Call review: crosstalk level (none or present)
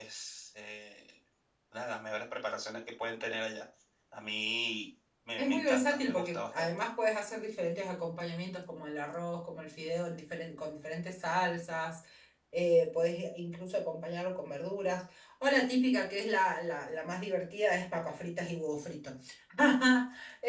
present